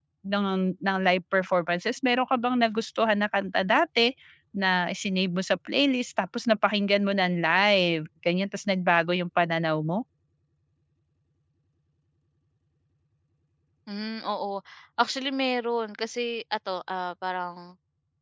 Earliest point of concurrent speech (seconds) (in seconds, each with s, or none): none